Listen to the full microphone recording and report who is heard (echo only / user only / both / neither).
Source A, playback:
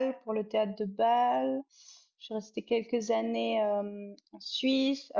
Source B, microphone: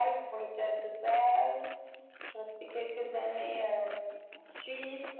echo only